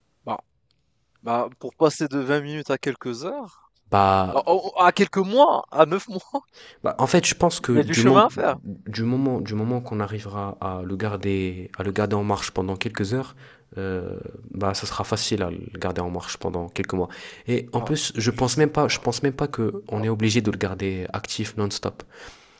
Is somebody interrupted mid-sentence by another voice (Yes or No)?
Yes